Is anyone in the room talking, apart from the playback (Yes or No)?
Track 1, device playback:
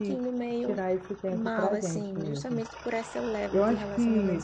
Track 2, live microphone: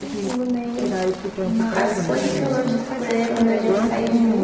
Yes